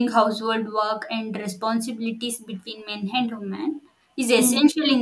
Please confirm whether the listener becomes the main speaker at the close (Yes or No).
No